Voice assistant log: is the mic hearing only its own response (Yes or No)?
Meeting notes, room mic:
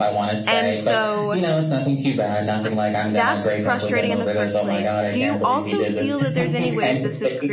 No